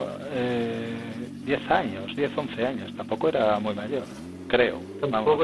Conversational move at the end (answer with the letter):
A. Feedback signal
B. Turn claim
B